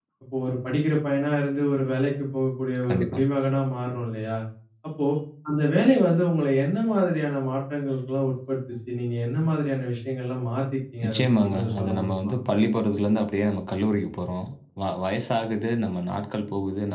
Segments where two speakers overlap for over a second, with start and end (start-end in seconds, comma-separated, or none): 11.0-12.3